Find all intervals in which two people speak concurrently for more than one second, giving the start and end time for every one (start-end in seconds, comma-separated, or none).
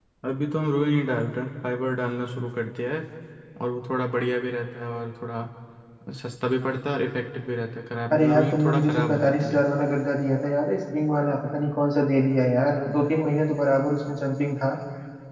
8.1-9.6